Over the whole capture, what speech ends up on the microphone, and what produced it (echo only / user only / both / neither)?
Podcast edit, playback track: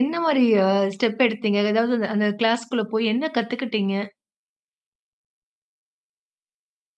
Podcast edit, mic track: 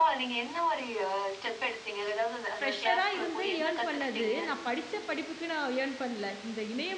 both